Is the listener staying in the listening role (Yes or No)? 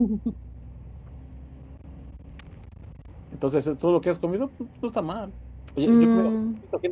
Yes